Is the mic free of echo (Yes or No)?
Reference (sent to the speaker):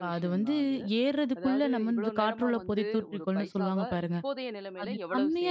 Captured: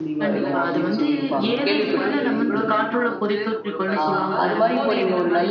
No